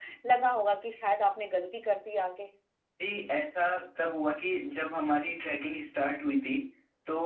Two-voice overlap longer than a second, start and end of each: none

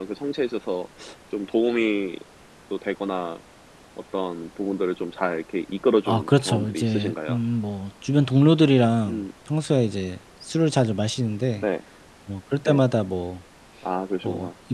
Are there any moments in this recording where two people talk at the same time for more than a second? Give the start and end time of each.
6.0-7.4

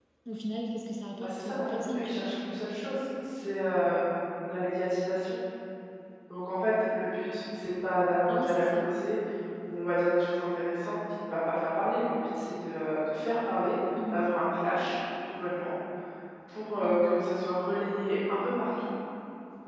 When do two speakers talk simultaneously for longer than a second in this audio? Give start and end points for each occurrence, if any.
1.2-2.8

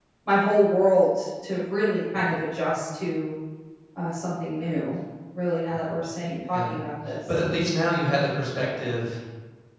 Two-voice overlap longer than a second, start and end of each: none

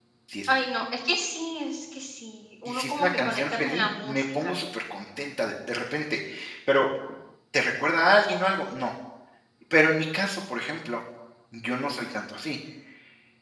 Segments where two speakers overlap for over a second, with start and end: 2.6-4.5

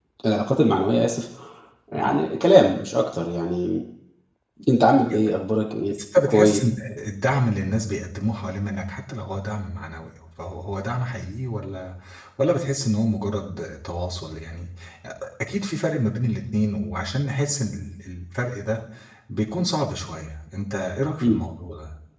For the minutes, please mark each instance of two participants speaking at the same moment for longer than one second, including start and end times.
none

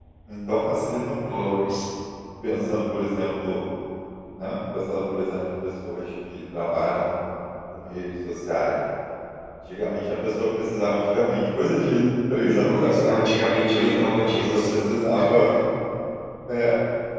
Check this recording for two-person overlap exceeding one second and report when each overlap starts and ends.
13.7-15.0

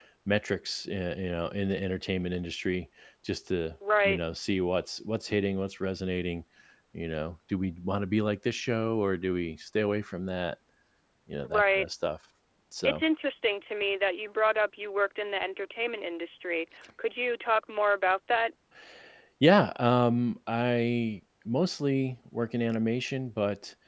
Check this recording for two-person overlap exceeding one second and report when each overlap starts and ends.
none

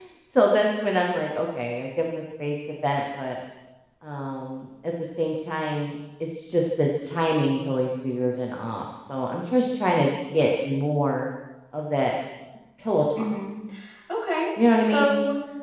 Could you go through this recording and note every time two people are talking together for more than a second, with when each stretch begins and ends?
none

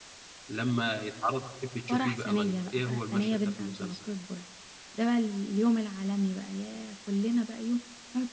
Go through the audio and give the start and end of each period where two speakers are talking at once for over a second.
1.9-4.0

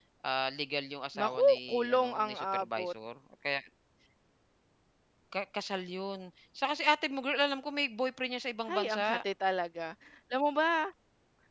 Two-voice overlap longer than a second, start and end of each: 1.2-2.9

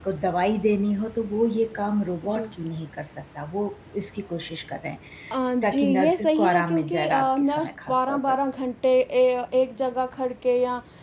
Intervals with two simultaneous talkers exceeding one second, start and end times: 5.6-8.4

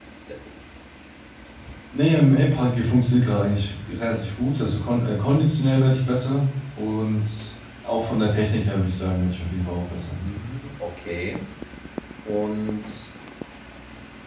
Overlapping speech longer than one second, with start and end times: none

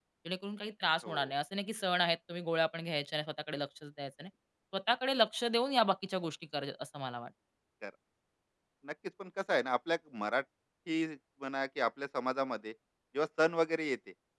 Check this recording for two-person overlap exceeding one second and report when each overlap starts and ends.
none

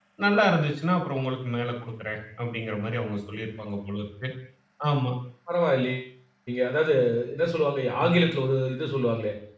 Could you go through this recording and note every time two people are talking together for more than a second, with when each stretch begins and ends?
none

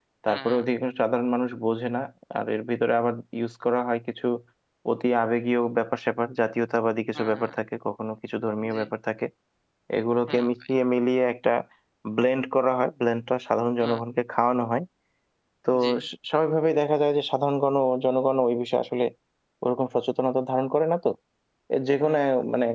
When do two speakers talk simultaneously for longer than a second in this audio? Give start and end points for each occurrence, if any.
none

